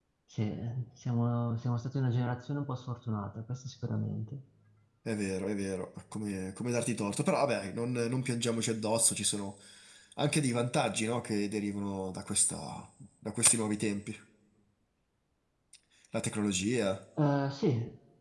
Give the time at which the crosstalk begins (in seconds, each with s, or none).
none